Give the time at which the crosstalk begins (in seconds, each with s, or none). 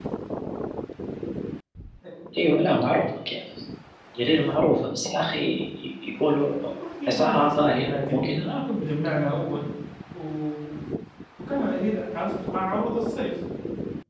7.1 s